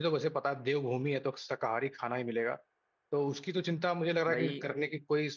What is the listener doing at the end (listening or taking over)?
listening